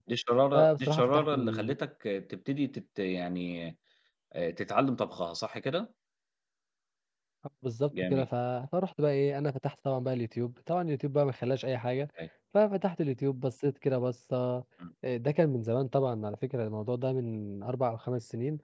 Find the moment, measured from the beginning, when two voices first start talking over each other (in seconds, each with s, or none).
0.5 s